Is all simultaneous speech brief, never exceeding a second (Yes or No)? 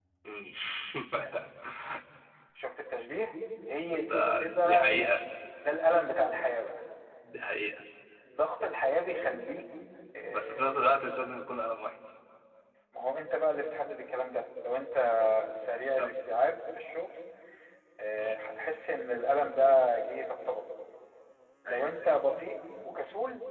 No